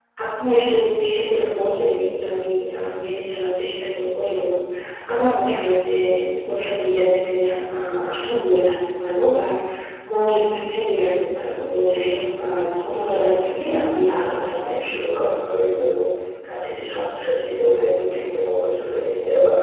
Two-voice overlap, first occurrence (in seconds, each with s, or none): 12.9 s